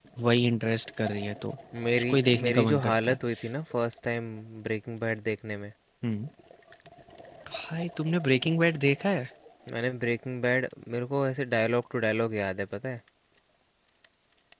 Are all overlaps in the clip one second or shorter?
No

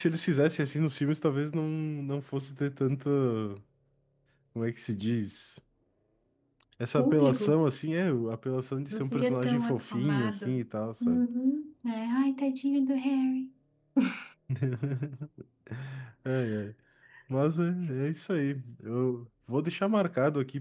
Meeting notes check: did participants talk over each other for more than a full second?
Yes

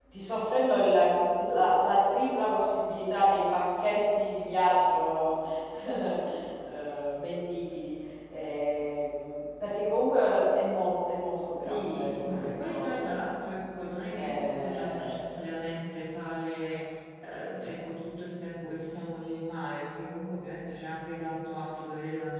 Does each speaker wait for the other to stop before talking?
No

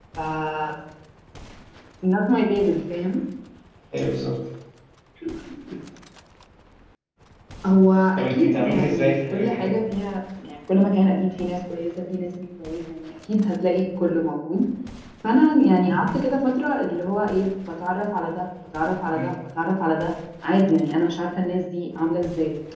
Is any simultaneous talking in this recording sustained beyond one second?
Yes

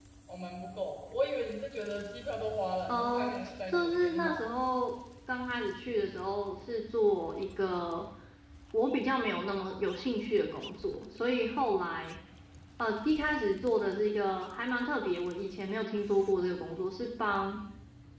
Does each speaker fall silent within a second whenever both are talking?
No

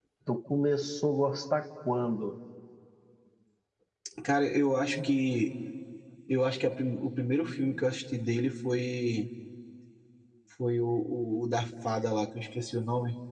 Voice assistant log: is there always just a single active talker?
Yes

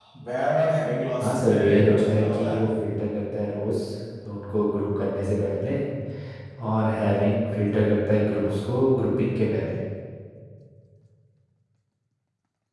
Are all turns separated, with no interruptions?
No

